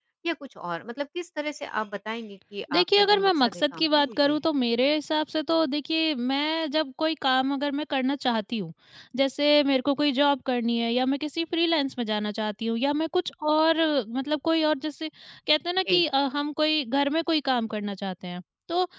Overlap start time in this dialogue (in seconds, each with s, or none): 2.7 s